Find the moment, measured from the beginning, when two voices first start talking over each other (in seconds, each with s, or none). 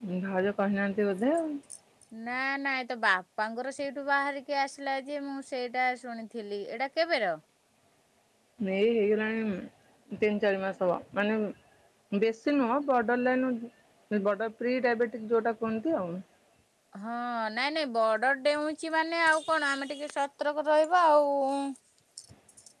none